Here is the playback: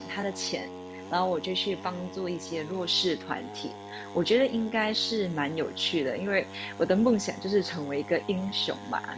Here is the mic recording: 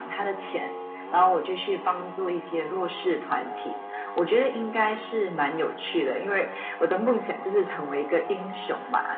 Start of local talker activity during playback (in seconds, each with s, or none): none